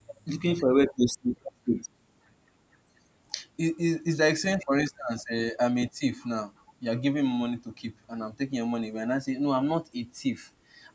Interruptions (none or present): none